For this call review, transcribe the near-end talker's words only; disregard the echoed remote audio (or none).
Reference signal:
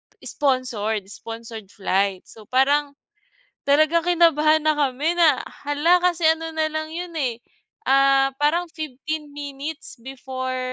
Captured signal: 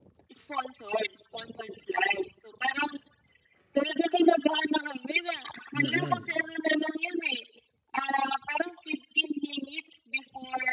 Mm.